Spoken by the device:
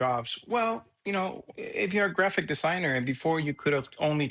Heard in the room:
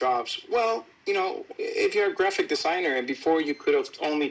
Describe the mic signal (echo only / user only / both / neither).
echo only